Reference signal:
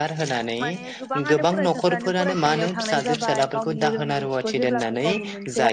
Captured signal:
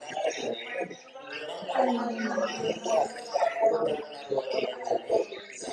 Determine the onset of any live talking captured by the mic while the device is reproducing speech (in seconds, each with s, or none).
1.7 s